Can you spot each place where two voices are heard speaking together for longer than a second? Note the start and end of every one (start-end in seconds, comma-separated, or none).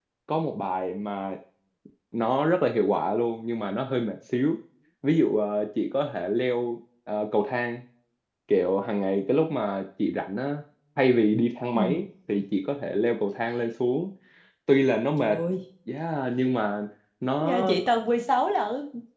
none